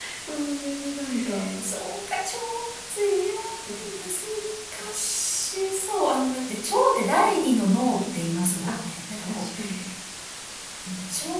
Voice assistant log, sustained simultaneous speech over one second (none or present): none